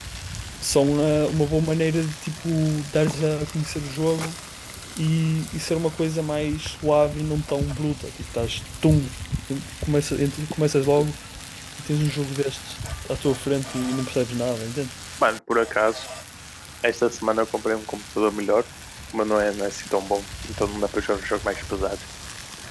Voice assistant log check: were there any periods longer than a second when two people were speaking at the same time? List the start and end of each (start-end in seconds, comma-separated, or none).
none